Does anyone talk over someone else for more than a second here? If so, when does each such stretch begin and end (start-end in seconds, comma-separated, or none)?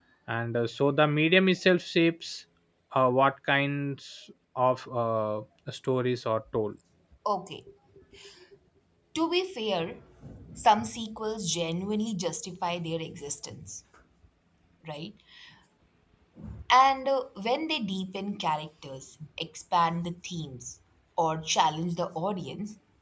none